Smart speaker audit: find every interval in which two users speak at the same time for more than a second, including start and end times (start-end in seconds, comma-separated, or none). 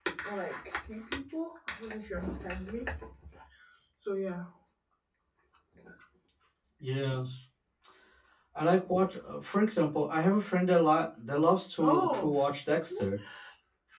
none